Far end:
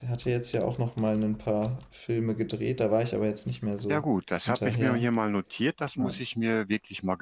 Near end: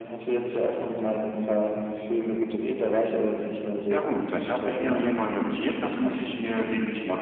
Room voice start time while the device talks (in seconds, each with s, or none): none